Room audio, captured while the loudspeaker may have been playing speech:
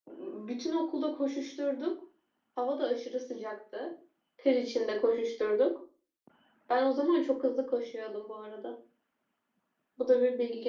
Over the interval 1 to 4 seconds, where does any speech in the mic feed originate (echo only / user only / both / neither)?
echo only